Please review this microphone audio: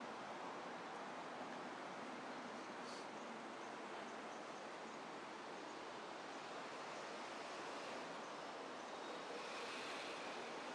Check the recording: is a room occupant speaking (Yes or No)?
No